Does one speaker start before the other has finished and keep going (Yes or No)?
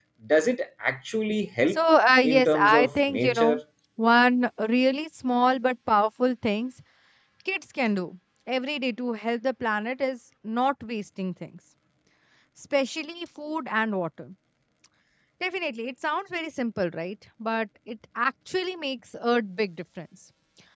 Yes